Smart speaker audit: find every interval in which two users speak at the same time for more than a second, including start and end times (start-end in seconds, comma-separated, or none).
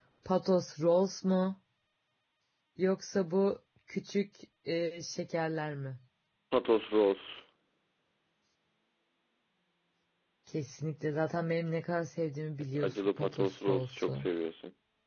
12.8-14.3